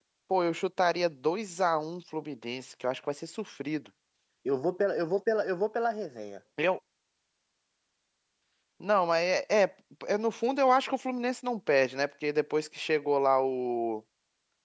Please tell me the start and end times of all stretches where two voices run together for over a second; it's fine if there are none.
none

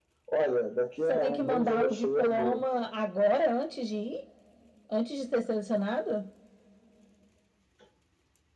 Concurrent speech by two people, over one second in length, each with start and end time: 1.1-2.6

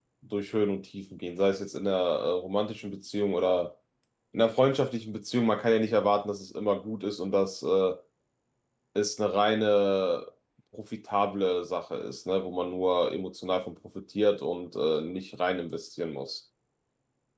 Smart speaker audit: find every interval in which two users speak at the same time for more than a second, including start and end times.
none

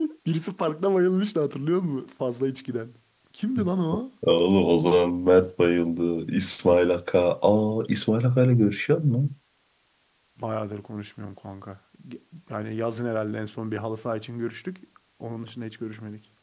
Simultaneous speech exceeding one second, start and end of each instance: none

